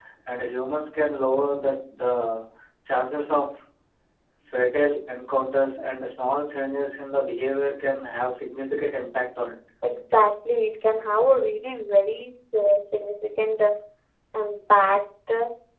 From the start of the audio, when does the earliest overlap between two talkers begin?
none

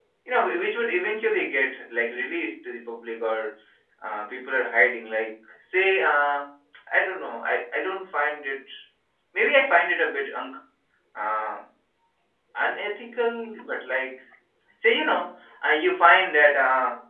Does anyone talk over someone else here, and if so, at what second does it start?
none

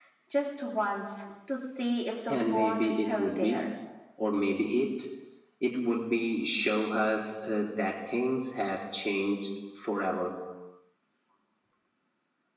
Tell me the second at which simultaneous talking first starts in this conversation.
2.3 s

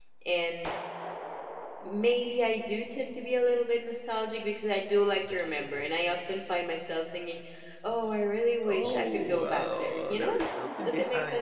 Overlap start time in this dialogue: 8.7 s

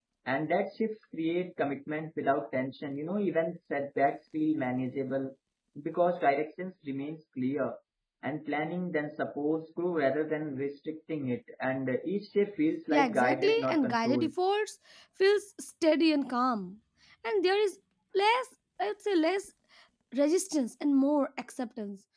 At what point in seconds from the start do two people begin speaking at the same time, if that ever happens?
12.9 s

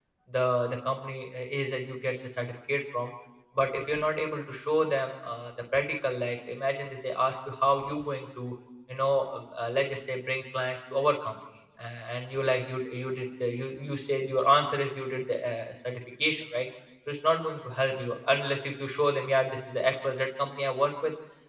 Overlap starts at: none

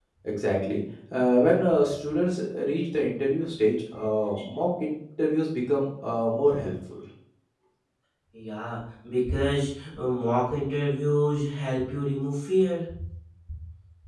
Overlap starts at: none

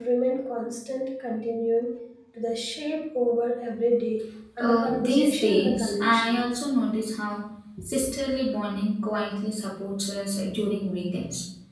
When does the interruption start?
4.6 s

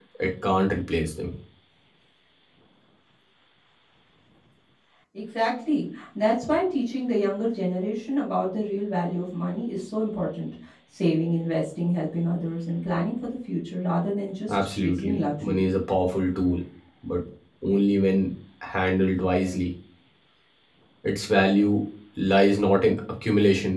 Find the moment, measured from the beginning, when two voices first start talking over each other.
14.5 s

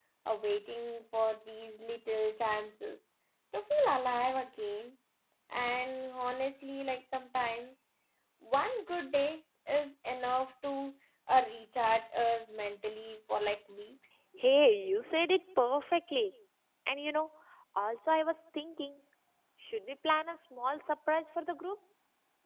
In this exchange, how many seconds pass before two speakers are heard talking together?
none

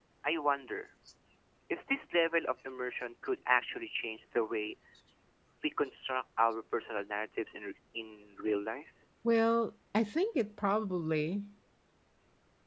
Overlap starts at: none

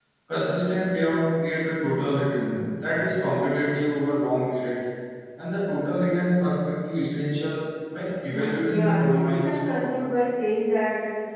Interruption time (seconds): 8.3 s

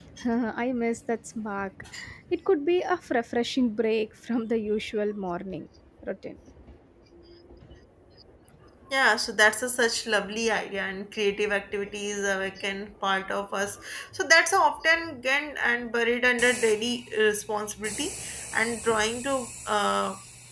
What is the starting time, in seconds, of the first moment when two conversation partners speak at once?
none

